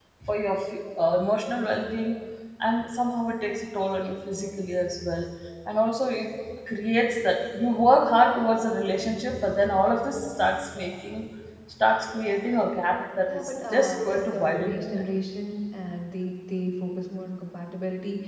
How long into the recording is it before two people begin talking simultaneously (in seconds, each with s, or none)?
13.3 s